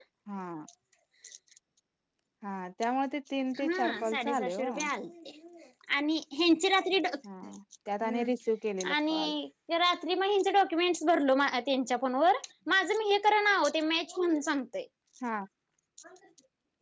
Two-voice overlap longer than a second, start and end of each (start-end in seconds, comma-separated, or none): 3.6-4.8